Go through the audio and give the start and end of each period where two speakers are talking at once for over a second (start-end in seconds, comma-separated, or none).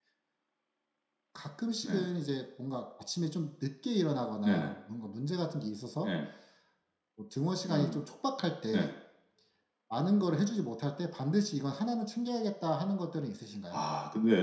none